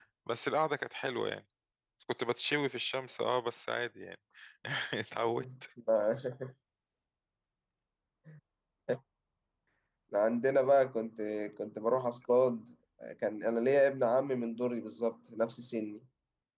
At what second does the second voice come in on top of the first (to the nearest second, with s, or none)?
none